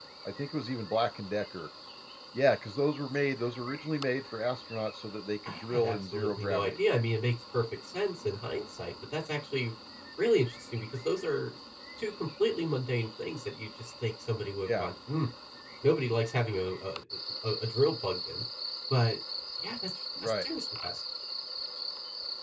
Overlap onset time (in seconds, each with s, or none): 5.5 s